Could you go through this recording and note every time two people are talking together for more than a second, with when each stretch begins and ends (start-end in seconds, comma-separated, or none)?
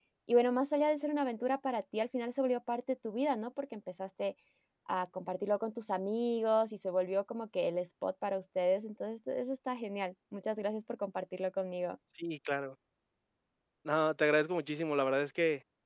none